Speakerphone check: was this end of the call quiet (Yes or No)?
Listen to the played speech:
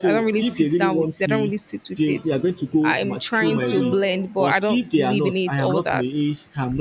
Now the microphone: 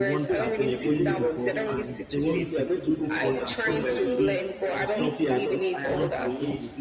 No